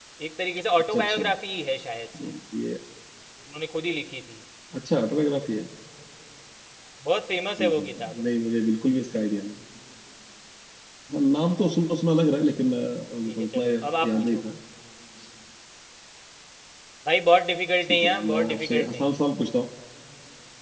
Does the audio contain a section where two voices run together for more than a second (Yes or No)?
Yes